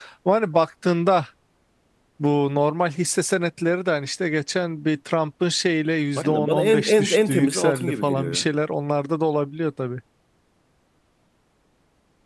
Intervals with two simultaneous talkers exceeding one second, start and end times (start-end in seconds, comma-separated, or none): 6.2-8.5